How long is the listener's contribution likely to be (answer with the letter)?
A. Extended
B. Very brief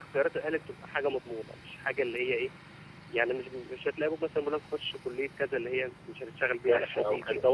A